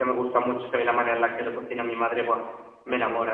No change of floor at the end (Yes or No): No